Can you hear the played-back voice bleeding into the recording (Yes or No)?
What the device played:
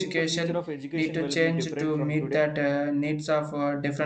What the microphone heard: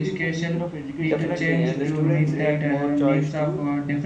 Yes